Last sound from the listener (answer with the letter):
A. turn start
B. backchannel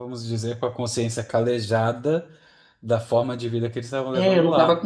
A